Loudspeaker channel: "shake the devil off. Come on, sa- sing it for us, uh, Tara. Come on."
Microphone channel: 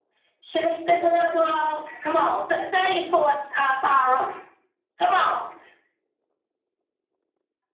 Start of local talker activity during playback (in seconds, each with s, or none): none